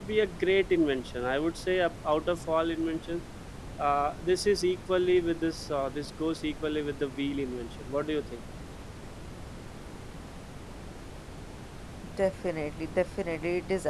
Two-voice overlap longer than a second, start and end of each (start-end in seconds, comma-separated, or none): none